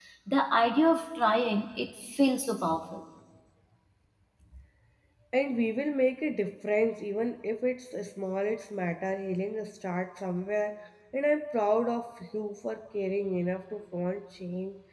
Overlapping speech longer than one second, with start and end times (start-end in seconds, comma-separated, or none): none